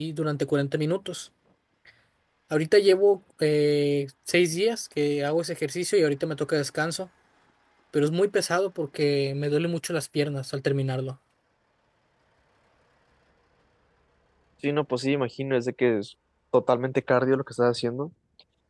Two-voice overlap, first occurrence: none

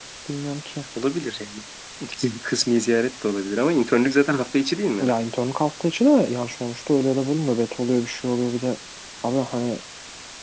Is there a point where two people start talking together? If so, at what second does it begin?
none

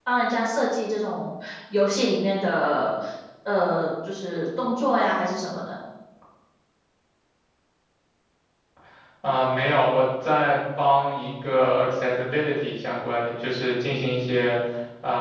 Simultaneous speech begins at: none

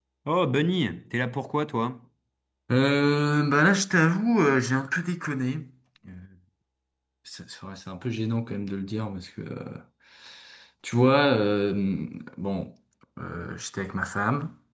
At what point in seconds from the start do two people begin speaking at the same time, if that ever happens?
none

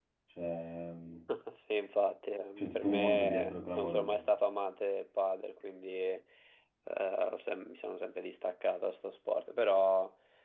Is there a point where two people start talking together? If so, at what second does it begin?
2.6 s

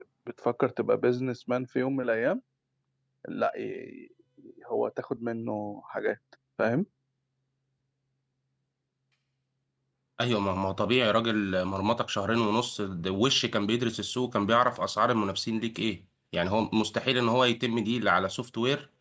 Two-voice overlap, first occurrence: none

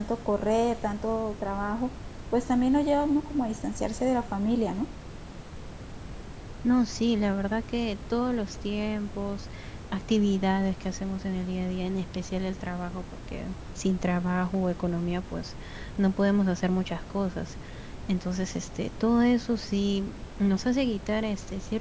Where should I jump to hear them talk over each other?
none

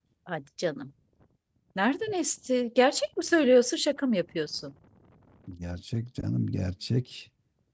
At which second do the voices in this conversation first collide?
none

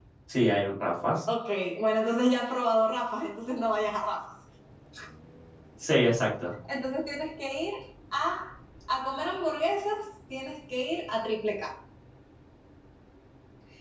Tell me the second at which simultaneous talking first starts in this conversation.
none

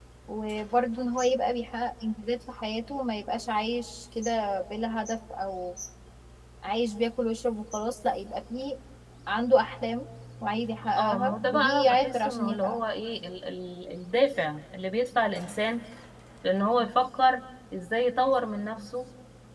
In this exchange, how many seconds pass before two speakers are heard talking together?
11.0 s

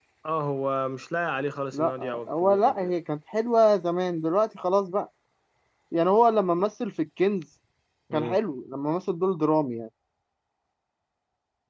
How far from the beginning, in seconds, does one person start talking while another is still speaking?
1.7 s

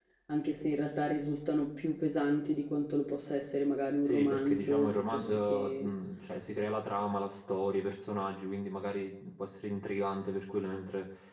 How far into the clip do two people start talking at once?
4.0 s

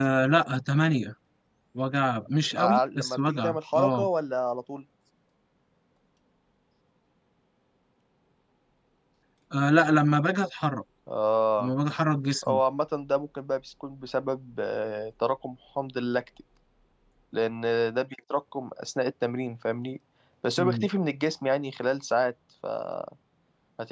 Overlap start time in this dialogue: 2.6 s

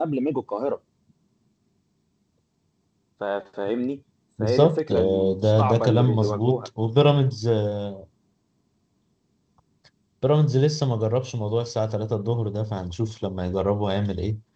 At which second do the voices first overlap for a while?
4.4 s

